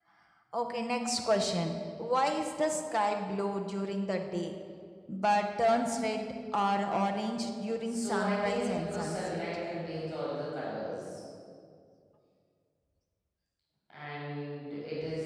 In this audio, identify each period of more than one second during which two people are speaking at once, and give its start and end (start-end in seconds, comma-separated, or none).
7.8-9.4